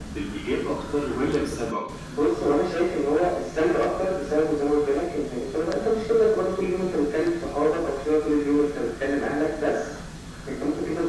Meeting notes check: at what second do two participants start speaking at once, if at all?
none

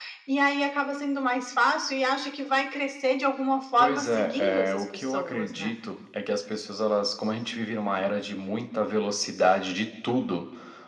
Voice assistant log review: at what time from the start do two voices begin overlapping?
3.8 s

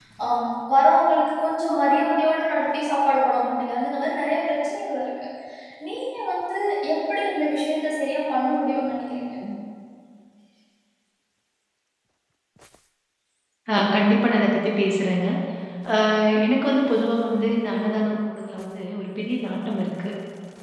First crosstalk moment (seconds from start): none

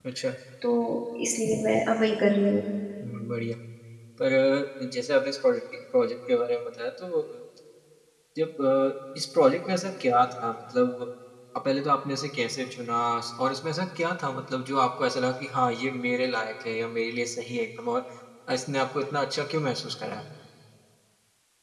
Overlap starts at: none

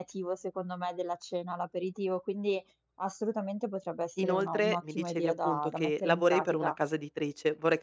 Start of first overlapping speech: 4.2 s

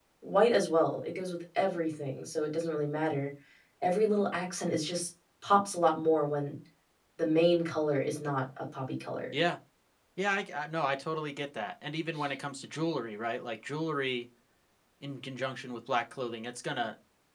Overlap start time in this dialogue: none

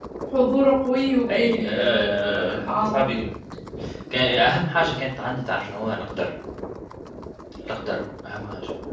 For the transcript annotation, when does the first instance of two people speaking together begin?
1.3 s

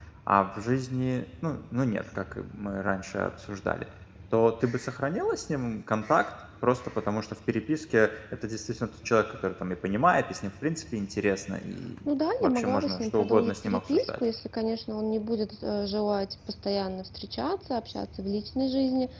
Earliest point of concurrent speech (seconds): 12.4 s

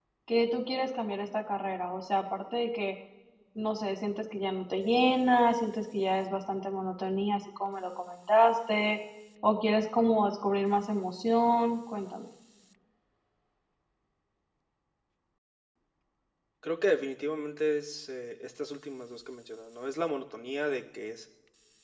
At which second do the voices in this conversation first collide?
none

